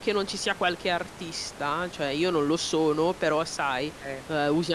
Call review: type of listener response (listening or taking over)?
listening